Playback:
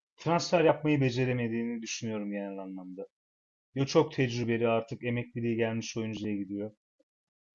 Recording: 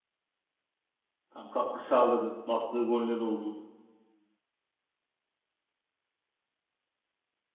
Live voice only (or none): Tam katkı sağladı. battığı goller oldu.